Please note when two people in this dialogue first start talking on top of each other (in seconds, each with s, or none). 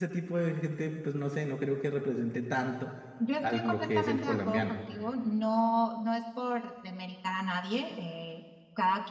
3.4 s